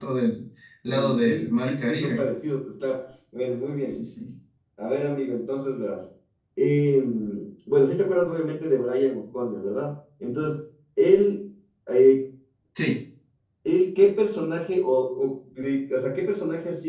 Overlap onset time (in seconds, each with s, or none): 0.9 s